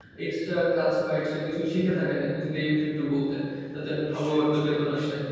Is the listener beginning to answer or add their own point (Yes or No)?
Yes